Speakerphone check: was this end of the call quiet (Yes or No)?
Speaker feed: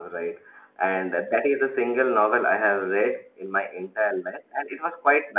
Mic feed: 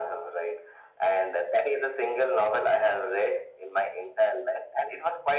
Yes